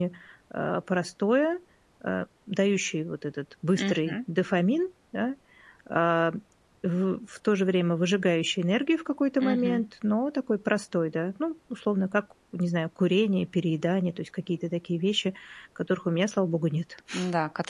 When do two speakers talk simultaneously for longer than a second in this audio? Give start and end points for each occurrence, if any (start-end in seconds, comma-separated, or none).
none